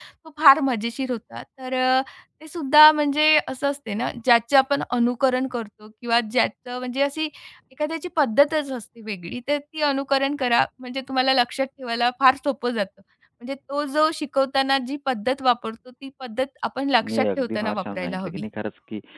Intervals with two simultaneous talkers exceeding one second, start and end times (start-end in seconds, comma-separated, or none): 17.0-18.4